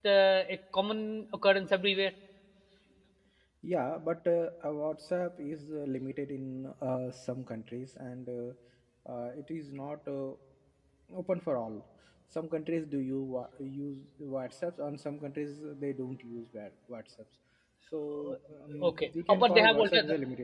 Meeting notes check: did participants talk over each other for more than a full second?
Yes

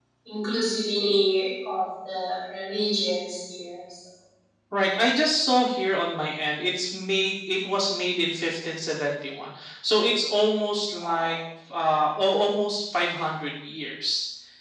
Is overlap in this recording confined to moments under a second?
Yes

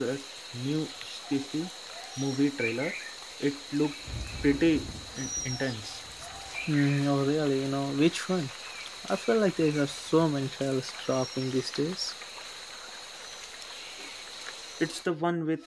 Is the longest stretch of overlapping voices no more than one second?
Yes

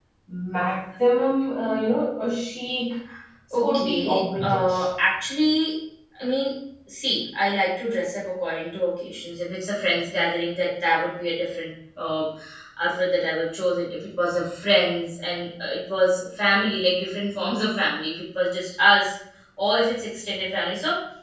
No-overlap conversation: No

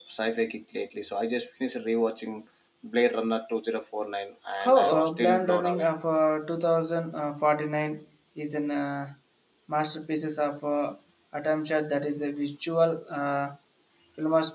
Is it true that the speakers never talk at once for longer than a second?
No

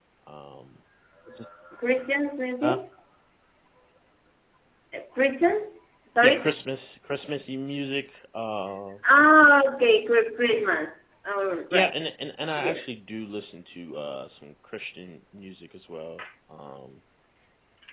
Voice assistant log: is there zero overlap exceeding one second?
Yes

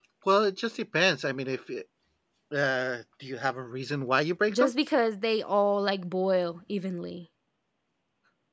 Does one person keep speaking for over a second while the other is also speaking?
No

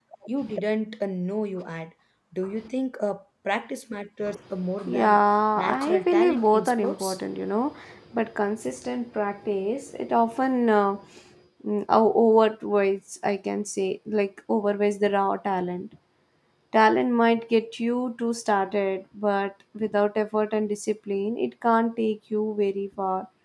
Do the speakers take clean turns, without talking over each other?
No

